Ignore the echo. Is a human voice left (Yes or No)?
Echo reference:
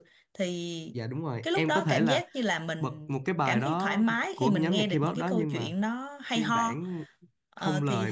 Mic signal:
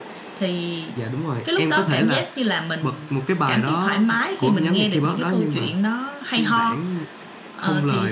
No